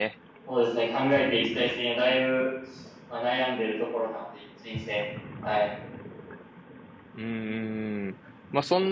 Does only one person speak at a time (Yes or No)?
Yes